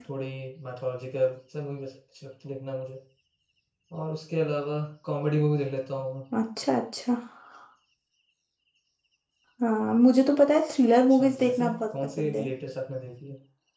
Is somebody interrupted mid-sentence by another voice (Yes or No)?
Yes